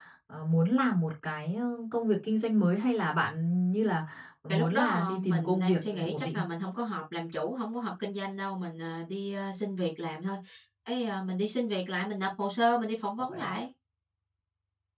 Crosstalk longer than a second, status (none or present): present